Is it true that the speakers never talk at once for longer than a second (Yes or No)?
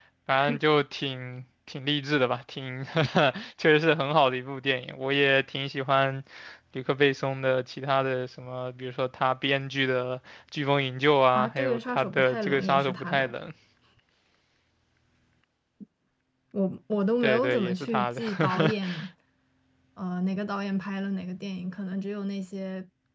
No